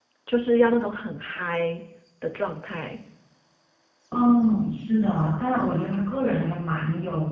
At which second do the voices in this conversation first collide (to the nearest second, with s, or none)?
none